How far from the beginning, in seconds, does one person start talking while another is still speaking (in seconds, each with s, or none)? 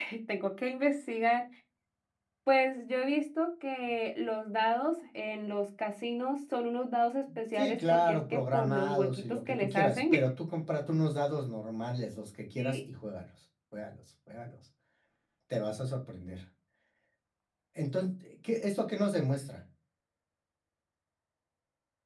7.6 s